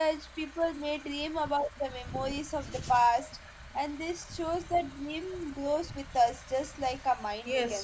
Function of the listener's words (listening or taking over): taking over